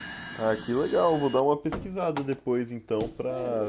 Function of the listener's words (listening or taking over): taking over